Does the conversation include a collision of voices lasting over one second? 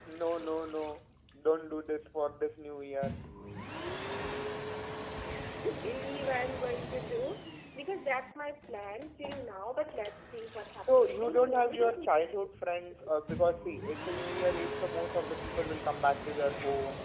Yes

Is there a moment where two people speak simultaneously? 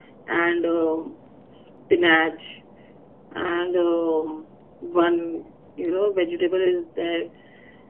No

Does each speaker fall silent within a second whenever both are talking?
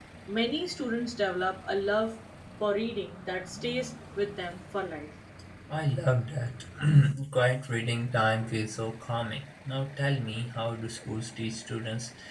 Yes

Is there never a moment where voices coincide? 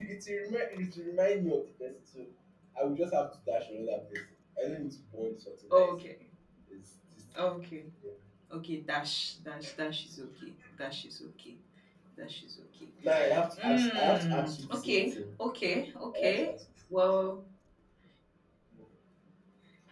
No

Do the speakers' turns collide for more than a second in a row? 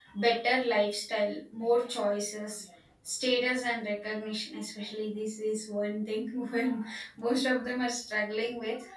No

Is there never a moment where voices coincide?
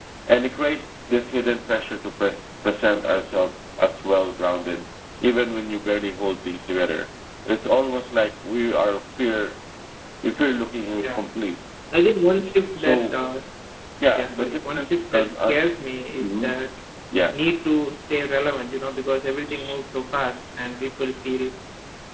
No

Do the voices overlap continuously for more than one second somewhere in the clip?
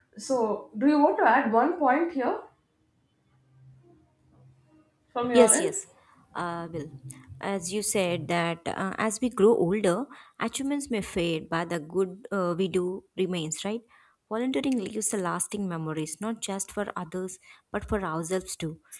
No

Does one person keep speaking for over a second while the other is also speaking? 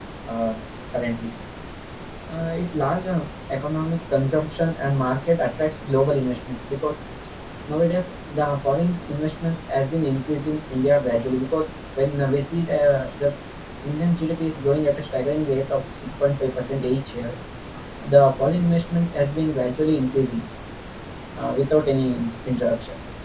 No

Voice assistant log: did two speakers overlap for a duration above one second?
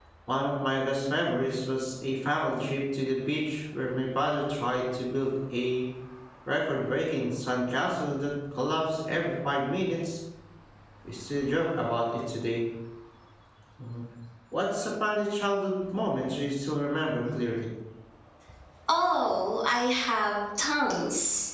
No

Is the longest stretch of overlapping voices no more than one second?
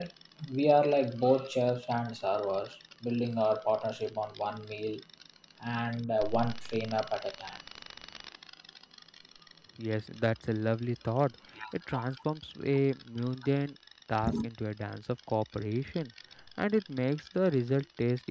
Yes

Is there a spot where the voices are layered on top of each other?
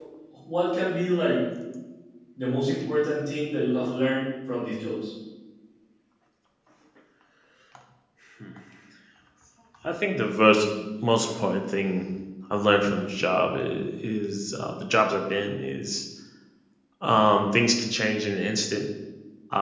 No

